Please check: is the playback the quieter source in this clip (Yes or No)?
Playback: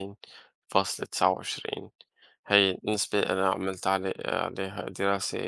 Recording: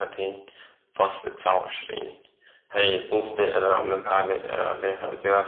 No